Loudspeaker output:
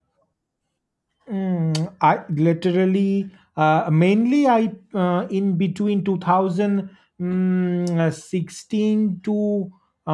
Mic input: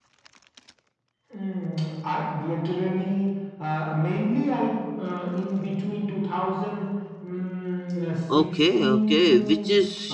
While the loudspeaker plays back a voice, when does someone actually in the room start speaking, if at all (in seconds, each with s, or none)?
8.3 s